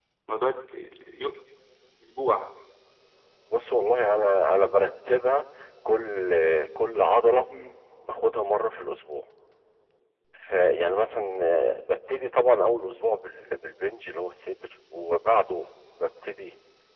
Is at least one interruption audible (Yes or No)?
No